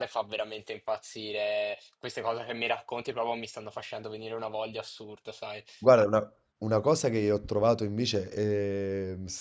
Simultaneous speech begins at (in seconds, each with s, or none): none